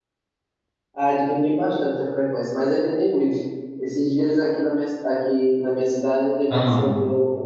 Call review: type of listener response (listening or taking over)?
listening